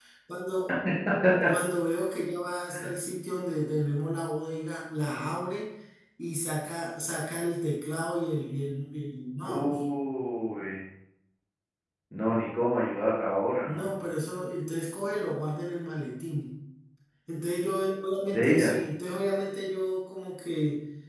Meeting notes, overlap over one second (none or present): none